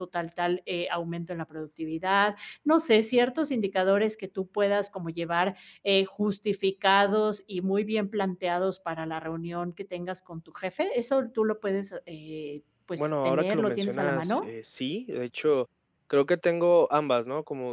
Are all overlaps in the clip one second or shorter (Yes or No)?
No